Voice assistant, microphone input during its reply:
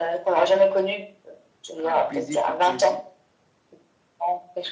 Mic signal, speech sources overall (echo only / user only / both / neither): both